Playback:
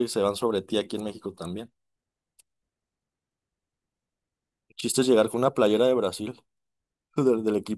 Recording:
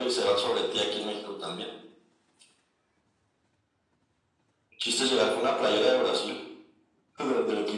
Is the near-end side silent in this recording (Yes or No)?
Yes